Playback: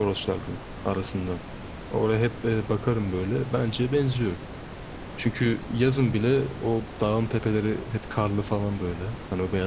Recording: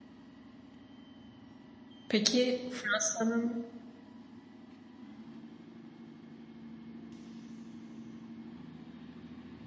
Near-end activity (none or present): present